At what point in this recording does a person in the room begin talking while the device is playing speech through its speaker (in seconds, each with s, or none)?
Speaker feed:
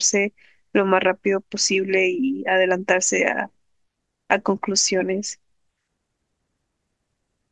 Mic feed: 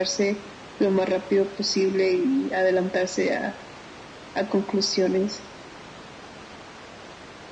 none